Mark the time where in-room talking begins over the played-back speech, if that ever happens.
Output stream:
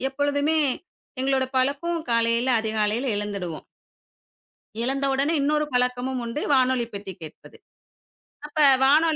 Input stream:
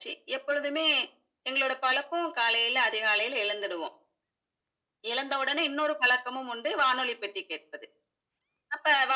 none

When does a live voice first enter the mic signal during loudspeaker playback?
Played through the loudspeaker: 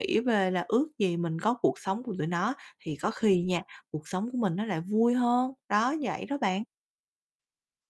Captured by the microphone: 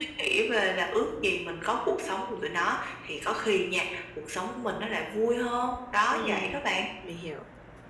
6.1 s

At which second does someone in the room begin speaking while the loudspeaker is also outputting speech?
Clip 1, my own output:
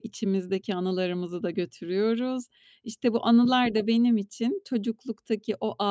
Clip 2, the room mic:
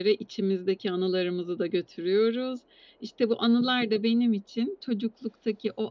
none

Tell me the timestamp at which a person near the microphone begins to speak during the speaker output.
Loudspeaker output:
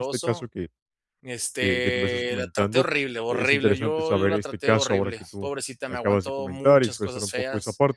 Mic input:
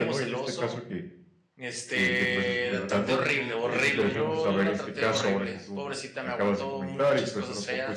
2.6 s

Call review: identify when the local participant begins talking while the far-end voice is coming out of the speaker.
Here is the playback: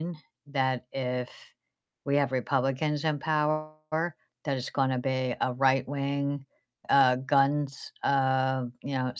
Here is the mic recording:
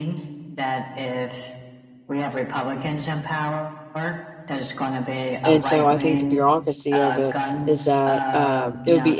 5.4 s

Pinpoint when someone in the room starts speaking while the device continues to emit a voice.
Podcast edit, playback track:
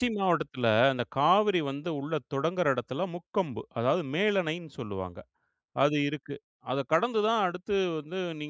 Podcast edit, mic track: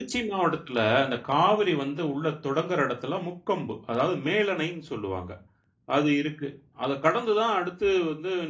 none

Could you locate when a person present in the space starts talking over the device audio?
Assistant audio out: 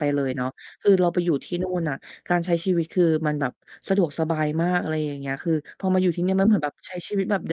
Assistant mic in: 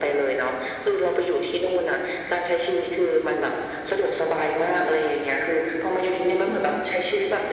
none

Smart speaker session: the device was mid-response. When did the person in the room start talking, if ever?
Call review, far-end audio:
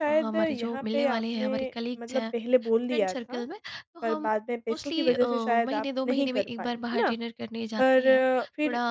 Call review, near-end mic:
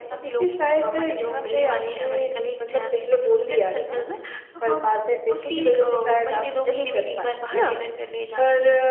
none

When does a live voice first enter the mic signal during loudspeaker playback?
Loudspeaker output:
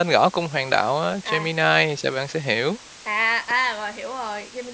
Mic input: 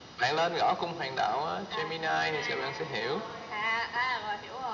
1.9 s

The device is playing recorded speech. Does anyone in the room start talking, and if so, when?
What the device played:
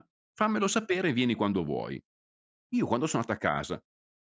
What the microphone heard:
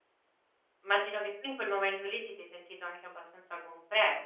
0.8 s

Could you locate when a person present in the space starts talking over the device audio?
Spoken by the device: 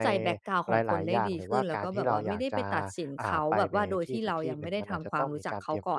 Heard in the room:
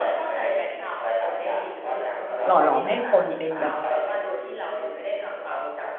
2.5 s

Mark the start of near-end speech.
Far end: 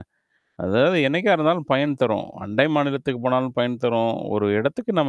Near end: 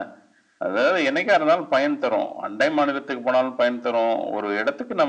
none

